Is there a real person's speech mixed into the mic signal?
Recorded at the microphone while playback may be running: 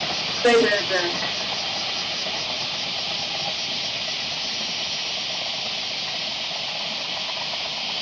Yes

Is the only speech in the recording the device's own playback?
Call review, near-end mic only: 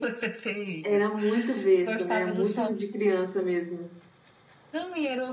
No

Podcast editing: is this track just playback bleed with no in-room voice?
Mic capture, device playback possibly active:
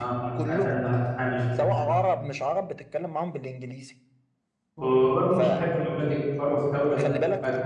No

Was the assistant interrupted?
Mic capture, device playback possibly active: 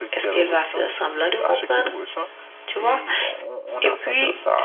Yes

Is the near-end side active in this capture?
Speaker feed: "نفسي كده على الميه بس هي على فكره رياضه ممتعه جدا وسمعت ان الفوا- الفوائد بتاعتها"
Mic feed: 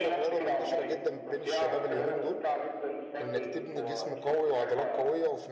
Yes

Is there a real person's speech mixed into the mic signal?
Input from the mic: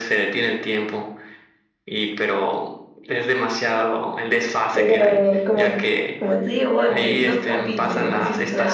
Yes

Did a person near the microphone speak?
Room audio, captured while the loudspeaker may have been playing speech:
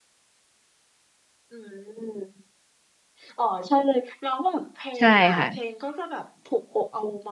Yes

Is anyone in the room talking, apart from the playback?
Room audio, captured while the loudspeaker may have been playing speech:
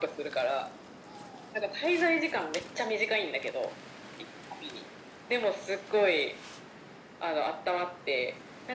No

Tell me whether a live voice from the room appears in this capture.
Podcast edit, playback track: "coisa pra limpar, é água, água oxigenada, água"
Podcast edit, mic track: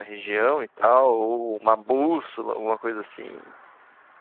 Yes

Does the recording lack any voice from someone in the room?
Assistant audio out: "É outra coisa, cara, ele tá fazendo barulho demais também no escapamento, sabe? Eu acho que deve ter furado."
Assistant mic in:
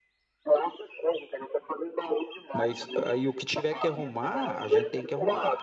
No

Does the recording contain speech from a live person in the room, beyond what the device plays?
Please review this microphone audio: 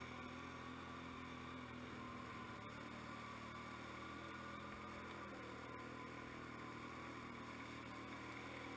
No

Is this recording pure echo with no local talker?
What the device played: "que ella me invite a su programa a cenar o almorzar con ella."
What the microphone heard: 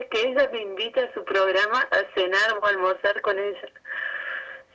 Yes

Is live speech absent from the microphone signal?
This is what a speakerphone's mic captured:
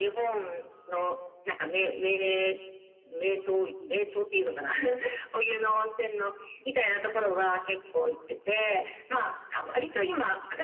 Yes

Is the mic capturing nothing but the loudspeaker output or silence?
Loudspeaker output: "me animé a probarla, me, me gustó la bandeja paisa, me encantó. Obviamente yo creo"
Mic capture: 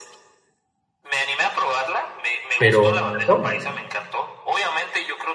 No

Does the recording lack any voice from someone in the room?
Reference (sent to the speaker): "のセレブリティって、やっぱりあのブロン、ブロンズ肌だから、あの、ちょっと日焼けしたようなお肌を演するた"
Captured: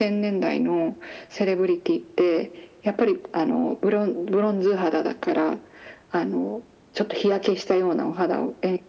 Yes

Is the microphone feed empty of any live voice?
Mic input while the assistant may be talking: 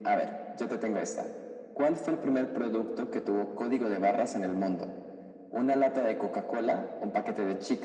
Yes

